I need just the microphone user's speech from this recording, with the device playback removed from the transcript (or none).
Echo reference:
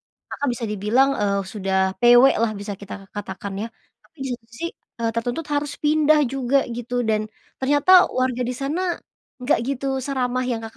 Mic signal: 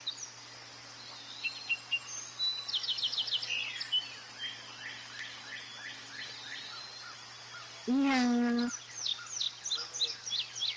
Iya.